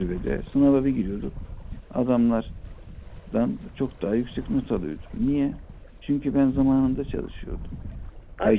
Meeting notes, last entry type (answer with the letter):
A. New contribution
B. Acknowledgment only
A